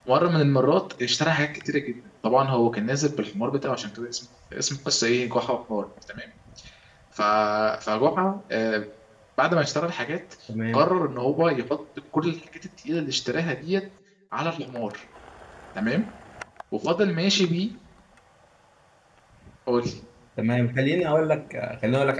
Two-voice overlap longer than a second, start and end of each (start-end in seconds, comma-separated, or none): none